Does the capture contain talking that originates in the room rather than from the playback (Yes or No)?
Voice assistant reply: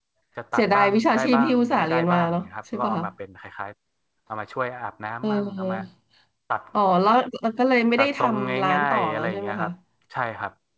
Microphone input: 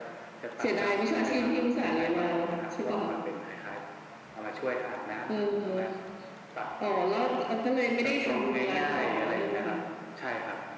No